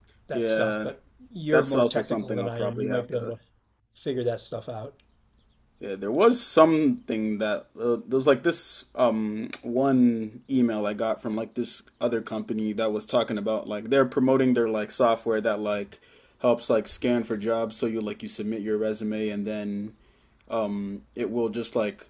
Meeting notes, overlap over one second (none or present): present